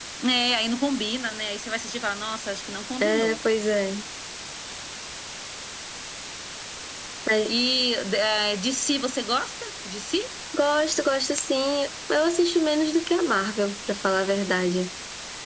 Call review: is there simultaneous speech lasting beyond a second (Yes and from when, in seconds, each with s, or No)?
No